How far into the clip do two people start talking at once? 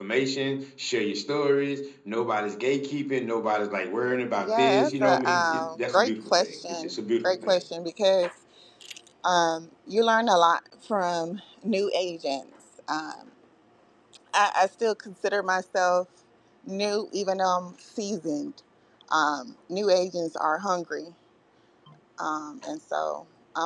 4.3 s

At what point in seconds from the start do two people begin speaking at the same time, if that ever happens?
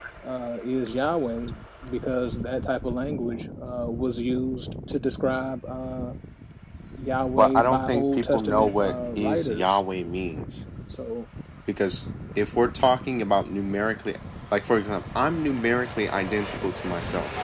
7.4 s

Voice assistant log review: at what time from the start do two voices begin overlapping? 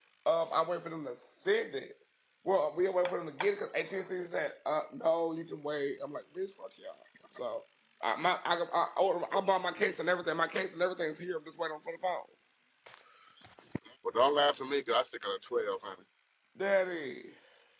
none

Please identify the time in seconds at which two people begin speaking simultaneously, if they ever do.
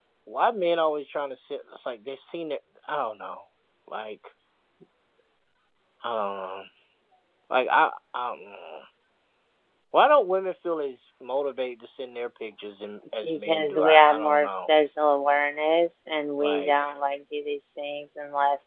13.2 s

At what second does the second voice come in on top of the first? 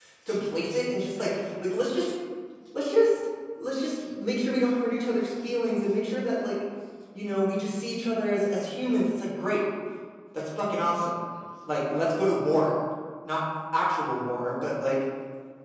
none

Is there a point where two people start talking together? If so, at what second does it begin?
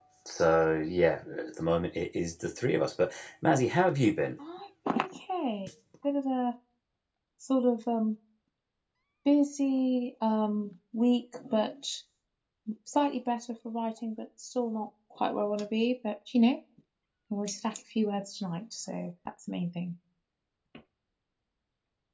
none

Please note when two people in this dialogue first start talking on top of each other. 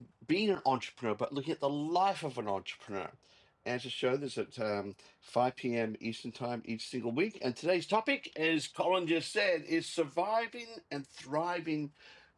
none

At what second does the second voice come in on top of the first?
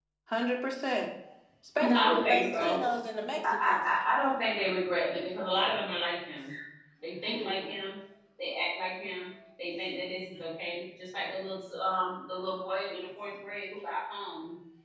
1.8 s

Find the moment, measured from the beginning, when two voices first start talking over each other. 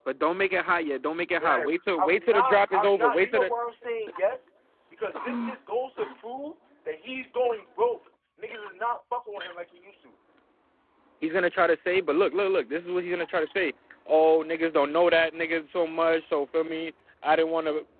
1.4 s

